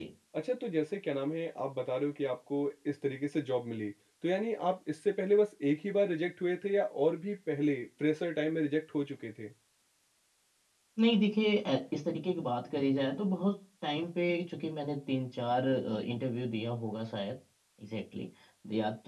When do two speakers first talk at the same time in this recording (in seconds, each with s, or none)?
none